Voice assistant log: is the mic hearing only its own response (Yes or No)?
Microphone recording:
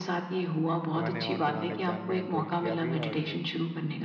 No